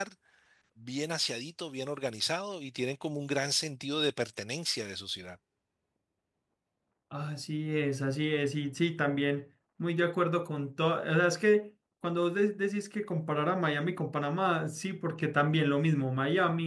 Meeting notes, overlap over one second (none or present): none